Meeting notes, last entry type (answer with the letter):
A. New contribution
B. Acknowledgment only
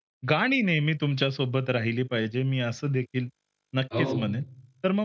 B